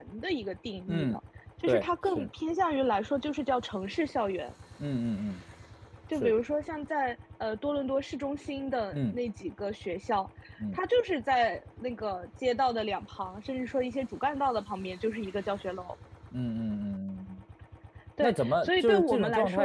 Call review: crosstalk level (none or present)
present